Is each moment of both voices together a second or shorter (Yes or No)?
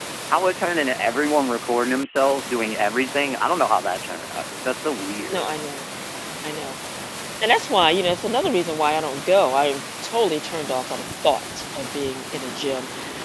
Yes